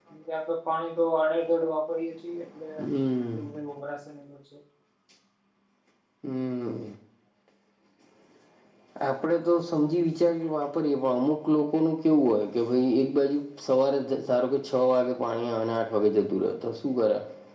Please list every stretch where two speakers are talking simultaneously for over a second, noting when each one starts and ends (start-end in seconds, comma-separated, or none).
none